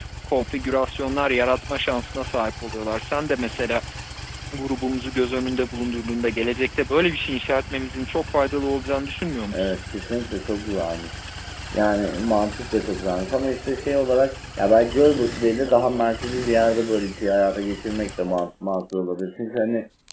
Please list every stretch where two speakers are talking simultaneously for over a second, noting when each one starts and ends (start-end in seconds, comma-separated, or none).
none